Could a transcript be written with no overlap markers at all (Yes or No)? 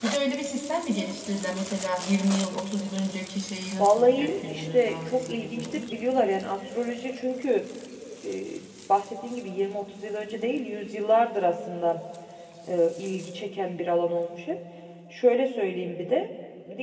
No